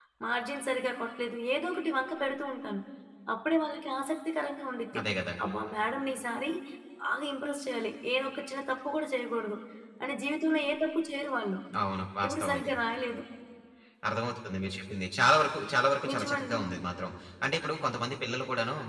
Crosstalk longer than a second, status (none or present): none